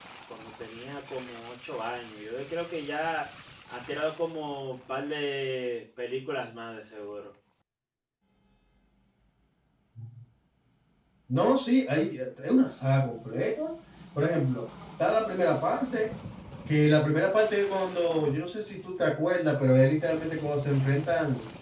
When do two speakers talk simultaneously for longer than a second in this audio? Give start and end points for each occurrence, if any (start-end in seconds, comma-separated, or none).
none